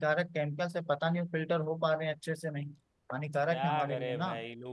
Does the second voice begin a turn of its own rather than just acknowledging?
Yes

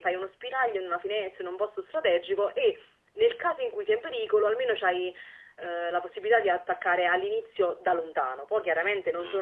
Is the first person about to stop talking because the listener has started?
No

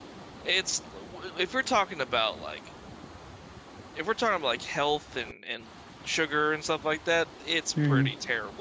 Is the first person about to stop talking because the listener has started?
Yes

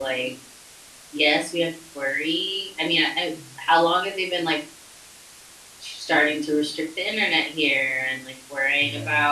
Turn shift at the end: No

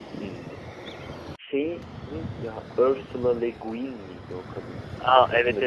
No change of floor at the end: No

